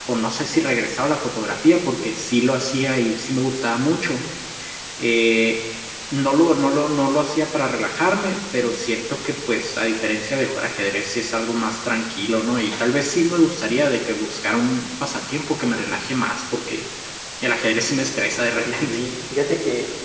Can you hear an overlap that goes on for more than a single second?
No

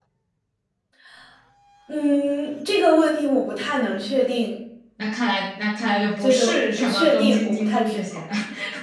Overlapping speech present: Yes, from 6.2 s

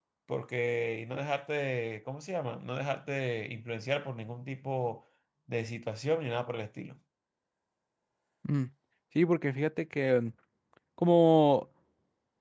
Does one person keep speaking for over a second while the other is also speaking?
No

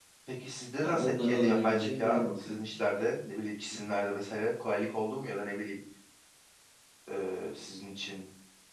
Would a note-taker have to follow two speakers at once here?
Yes, from 0.8 s

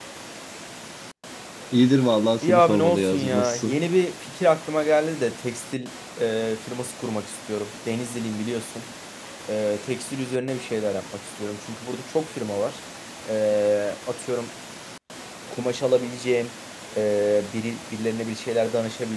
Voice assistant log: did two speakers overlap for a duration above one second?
Yes, from 2.4 s

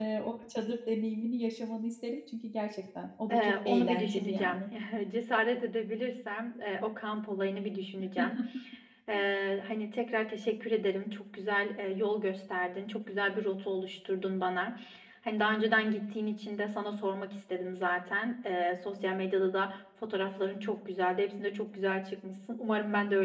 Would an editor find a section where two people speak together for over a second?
Yes, from 3.3 s

